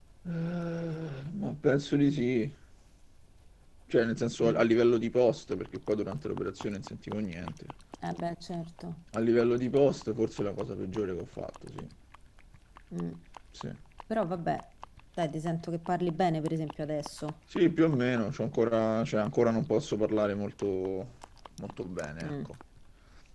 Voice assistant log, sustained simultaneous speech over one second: none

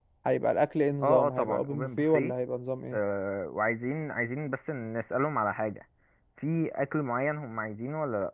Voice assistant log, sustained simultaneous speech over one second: present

